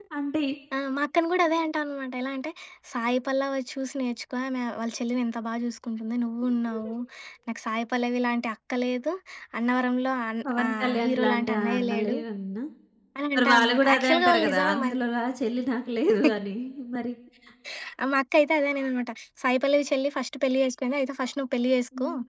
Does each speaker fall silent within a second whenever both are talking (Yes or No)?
No